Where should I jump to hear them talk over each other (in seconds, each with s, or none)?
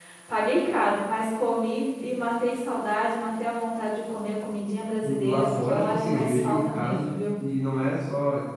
5.0 s